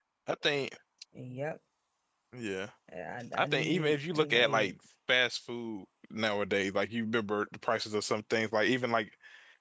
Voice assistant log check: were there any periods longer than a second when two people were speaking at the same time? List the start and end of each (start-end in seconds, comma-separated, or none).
3.3-4.7